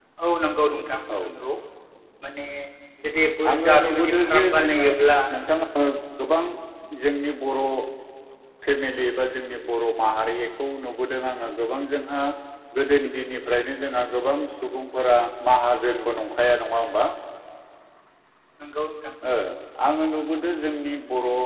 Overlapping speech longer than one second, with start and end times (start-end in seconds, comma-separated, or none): 3.5-4.8